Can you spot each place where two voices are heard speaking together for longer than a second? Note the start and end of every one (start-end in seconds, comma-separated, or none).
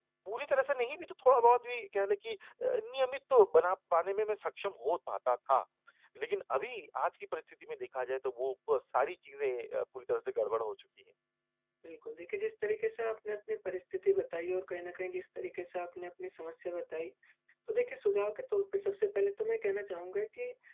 none